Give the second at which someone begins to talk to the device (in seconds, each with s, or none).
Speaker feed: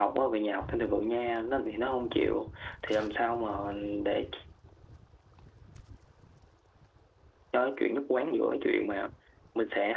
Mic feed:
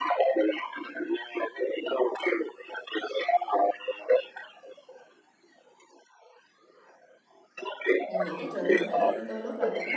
8.1 s